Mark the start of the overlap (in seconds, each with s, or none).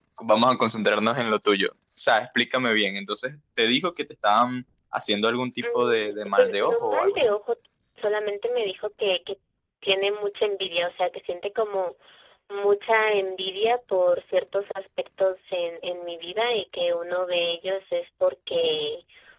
5.6 s